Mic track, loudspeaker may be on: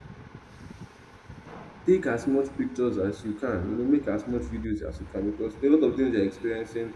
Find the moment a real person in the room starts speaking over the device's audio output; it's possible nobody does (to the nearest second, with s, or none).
2 s